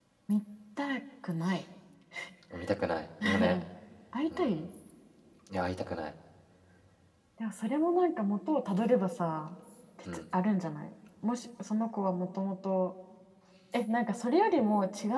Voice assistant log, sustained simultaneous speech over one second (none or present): none